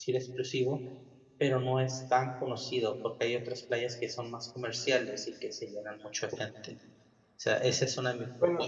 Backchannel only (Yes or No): Yes